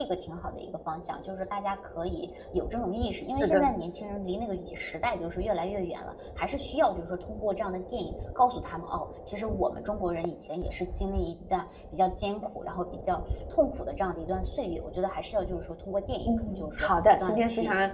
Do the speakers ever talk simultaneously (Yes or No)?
Yes